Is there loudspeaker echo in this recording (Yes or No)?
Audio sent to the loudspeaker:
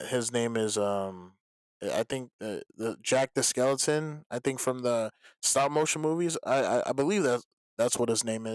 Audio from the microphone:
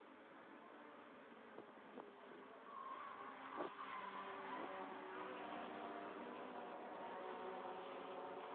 No